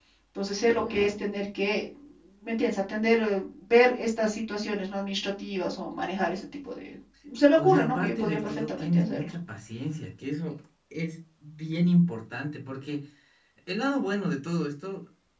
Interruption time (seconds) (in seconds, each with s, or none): 7.6 s